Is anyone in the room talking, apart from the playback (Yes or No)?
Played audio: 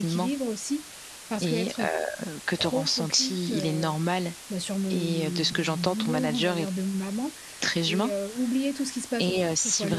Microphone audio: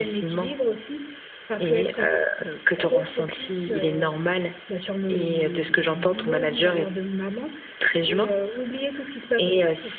No